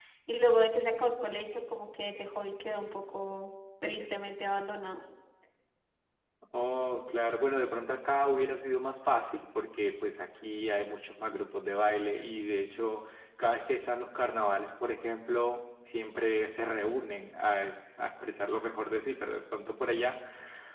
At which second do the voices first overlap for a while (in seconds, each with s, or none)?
none